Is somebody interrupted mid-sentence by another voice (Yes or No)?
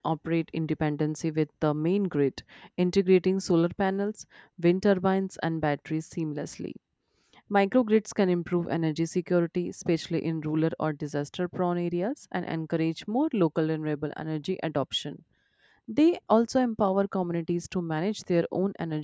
No